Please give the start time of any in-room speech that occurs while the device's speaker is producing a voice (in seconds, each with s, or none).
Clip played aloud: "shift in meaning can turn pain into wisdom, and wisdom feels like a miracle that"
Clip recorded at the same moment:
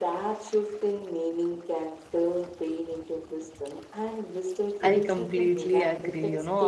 4.8 s